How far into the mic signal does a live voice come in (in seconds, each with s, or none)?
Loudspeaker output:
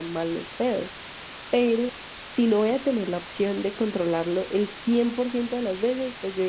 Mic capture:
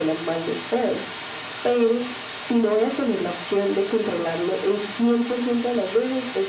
none